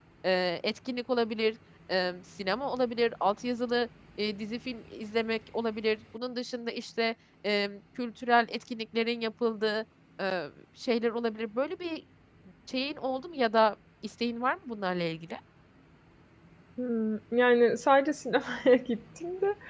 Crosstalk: none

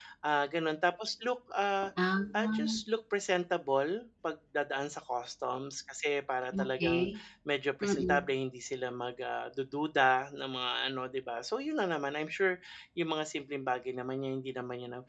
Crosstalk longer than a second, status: none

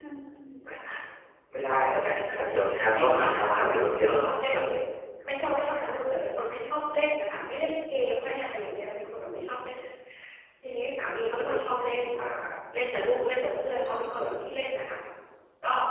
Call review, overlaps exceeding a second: present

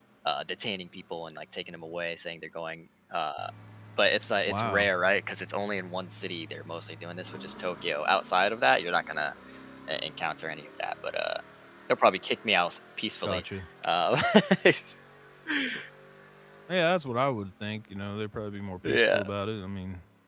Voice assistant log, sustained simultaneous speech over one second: none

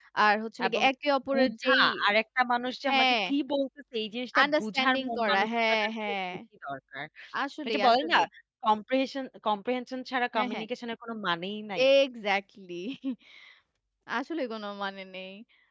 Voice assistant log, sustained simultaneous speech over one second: present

